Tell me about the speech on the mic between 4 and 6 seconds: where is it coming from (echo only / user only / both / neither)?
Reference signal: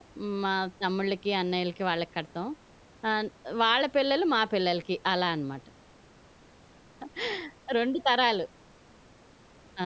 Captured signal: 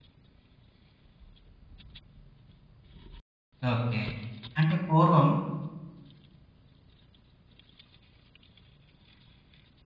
user only